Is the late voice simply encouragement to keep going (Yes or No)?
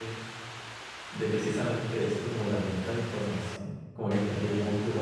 Yes